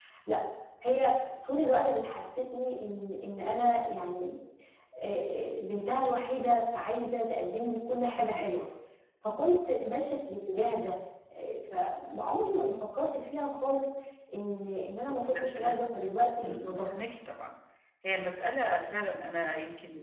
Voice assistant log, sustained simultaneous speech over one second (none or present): none